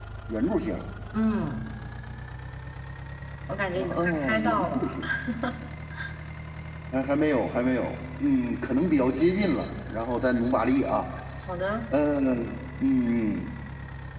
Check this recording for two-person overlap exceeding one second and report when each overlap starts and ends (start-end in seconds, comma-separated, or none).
3.8-5.0